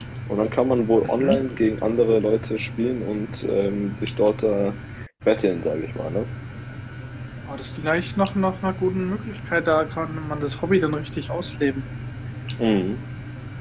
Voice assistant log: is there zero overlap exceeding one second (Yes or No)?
Yes